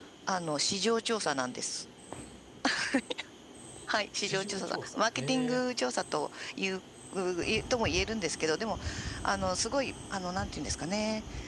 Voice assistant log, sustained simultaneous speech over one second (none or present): present